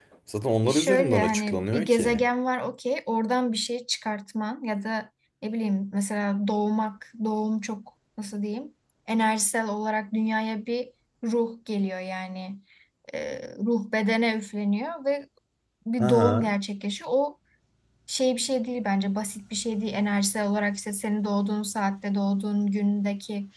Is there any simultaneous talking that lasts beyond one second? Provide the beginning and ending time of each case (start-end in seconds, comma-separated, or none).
0.6-2.2